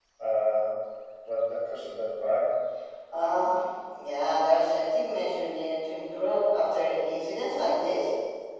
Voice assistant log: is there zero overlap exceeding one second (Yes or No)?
Yes